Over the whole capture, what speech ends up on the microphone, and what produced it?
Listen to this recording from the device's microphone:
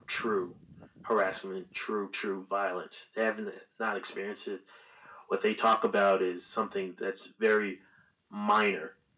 echo only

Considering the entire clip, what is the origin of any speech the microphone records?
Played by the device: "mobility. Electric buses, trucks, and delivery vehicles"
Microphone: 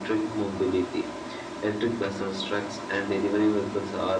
echo only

